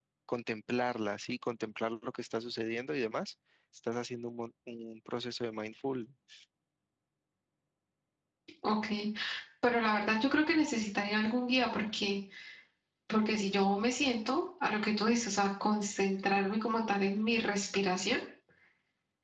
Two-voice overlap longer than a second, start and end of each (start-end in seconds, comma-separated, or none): none